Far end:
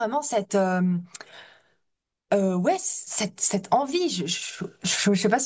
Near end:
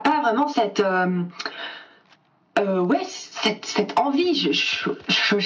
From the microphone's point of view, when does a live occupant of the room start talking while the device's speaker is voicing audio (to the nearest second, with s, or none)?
none